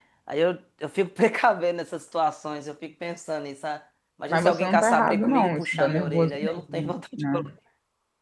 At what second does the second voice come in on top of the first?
4.3 s

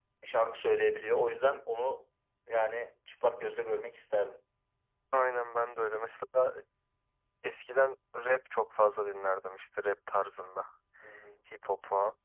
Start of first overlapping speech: none

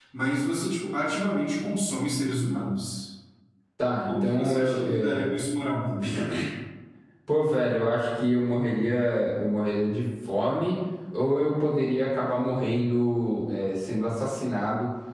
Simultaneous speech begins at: 4.1 s

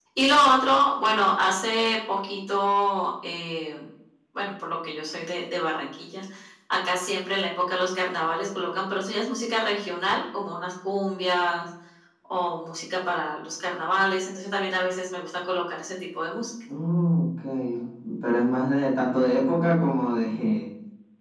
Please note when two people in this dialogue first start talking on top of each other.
none

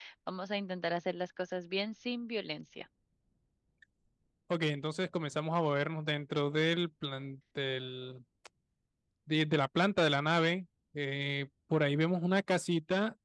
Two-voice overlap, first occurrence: none

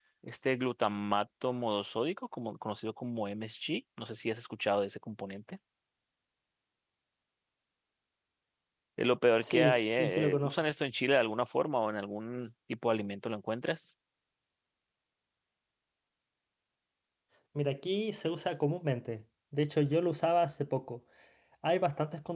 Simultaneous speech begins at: 9.4 s

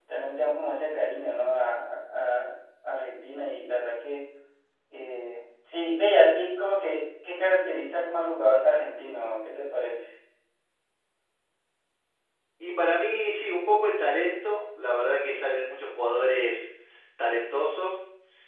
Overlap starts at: none

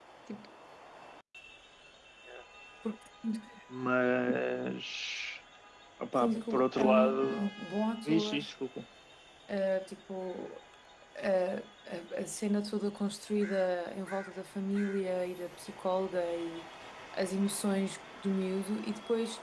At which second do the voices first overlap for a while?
6.2 s

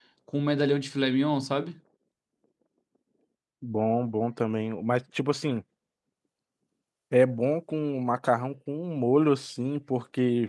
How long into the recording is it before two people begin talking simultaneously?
none

